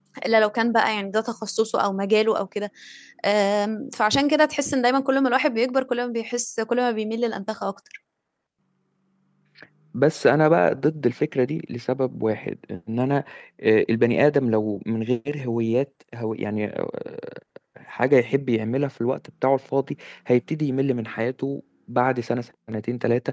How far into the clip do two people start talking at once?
none

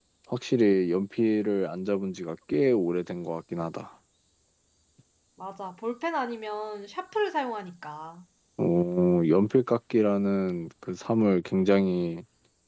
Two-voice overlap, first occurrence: none

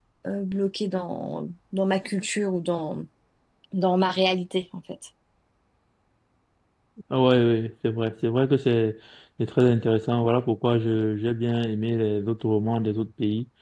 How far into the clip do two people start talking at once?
none

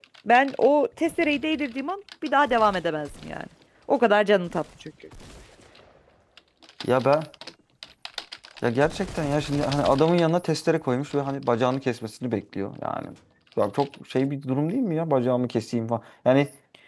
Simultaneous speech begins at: none

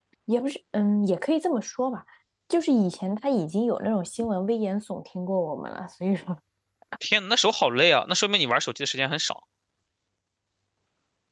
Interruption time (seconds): none

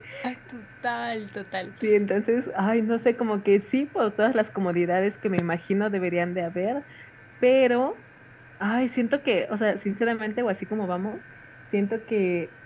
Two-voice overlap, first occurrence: none

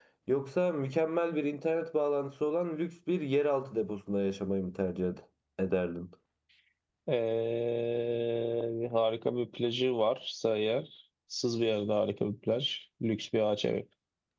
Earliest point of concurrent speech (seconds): none

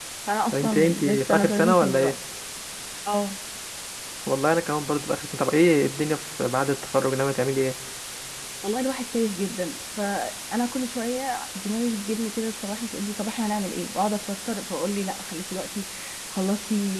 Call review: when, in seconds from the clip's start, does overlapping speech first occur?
0.5 s

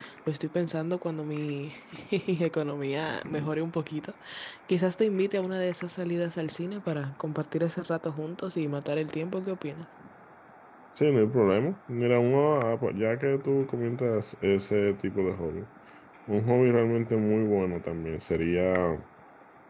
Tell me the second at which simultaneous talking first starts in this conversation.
none

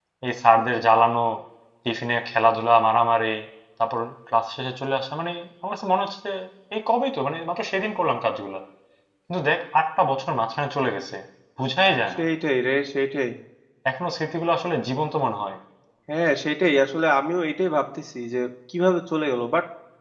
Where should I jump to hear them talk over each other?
none

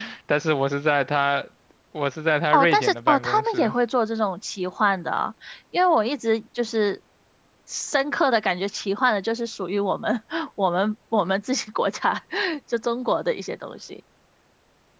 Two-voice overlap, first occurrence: 2.5 s

